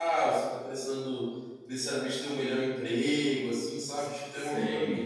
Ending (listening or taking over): taking over